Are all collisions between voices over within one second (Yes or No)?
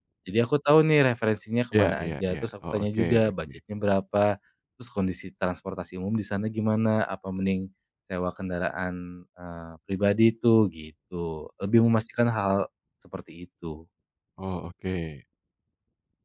No